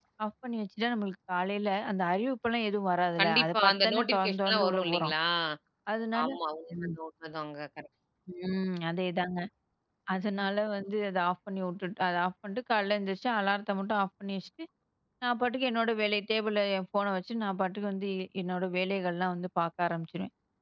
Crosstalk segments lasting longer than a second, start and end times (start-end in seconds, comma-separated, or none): 3.2-5.1